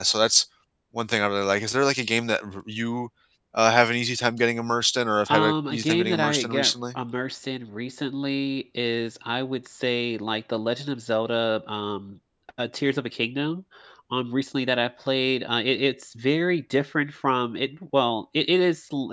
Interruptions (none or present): present